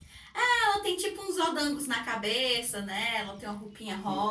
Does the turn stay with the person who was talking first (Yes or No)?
No